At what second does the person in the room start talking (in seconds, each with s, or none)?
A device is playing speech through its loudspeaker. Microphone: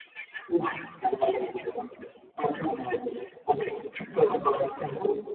none